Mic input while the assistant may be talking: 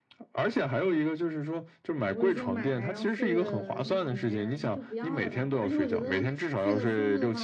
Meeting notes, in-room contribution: present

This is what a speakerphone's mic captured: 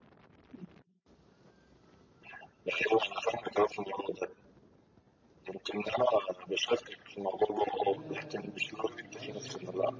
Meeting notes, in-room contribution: present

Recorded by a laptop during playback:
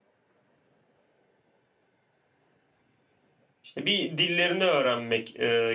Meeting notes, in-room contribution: present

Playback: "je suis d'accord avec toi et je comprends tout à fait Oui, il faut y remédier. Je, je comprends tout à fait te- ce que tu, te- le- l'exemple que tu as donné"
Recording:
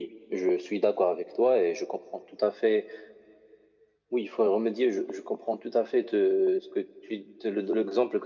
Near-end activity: none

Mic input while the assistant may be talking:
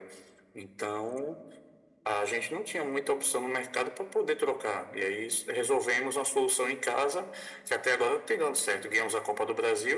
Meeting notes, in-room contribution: none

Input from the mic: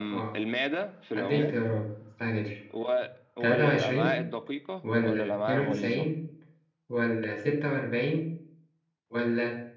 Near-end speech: present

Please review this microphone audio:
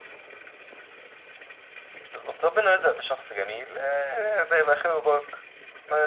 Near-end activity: none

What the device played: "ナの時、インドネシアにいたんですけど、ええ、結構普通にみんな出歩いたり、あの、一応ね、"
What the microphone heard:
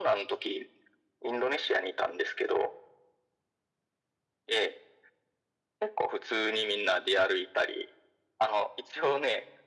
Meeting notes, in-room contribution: none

